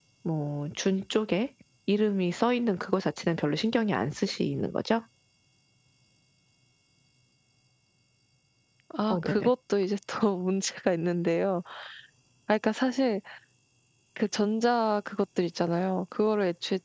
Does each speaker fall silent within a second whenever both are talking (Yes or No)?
Yes